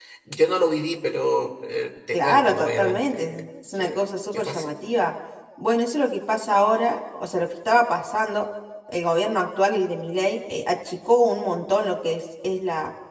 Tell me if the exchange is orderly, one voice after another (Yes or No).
No